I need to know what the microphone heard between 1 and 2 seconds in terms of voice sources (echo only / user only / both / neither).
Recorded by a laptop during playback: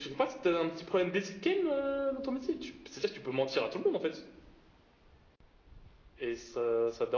echo only